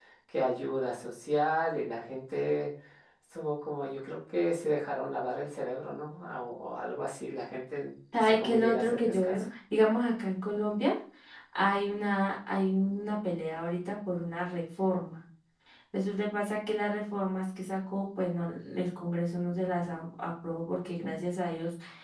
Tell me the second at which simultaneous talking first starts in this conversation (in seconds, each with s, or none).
8.1 s